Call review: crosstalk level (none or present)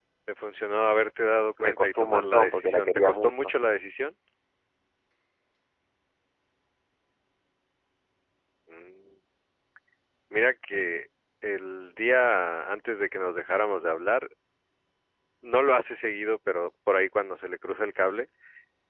present